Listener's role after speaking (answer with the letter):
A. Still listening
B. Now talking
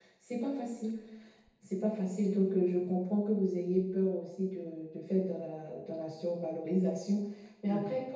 A